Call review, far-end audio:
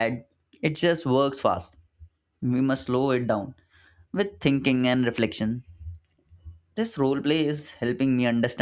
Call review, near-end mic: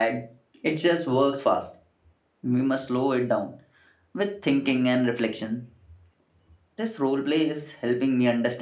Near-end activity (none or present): none